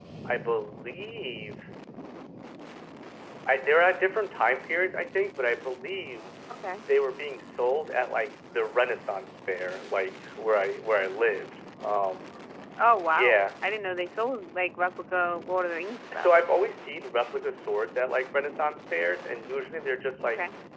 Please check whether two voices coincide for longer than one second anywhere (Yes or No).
No